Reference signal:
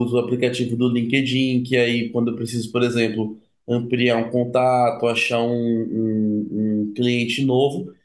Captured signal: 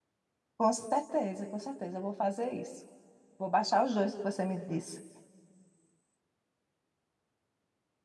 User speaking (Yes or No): Yes